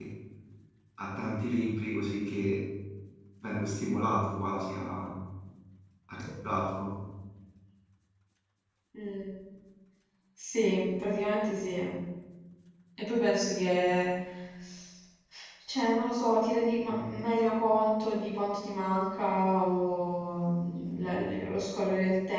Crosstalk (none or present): none